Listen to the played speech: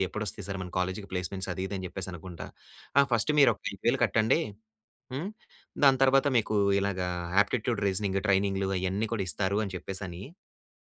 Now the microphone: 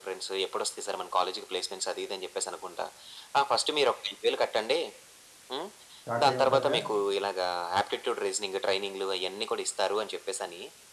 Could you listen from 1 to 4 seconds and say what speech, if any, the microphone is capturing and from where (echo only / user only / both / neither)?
echo only